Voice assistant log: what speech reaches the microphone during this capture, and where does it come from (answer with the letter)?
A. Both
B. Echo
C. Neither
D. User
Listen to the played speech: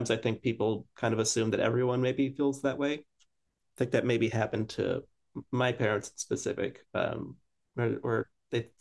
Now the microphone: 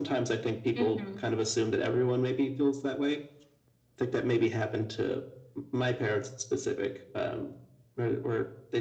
A